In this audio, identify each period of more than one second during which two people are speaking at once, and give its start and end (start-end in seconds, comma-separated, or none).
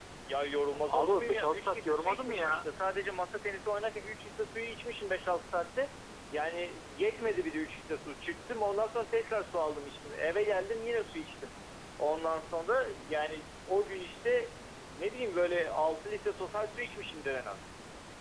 0.9-2.7